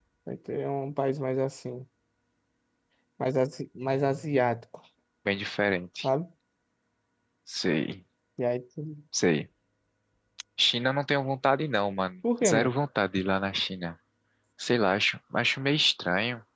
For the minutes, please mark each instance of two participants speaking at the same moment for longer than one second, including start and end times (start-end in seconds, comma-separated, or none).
none